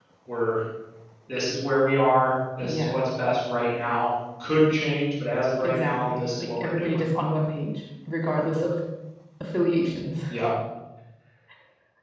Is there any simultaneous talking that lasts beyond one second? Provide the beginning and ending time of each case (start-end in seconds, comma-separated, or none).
5.6-7.0